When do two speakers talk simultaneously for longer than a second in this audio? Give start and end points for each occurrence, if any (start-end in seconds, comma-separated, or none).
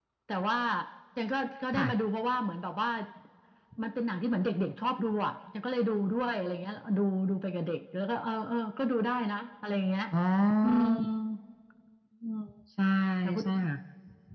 none